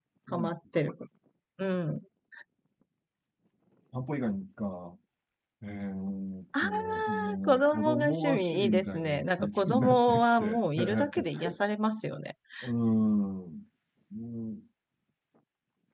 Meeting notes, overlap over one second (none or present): present